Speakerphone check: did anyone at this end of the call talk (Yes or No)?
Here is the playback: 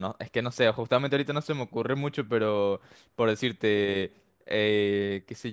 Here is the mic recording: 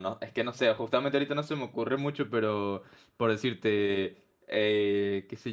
No